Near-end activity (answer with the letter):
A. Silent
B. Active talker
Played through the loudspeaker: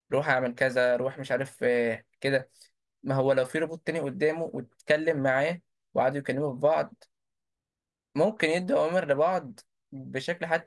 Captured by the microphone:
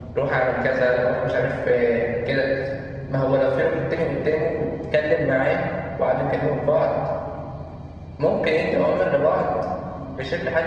A